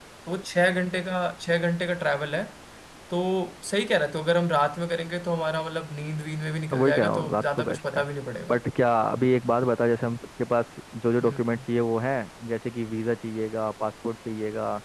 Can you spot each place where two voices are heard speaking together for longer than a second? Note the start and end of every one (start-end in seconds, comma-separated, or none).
6.7-8.0